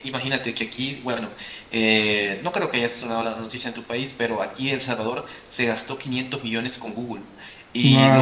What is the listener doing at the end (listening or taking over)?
listening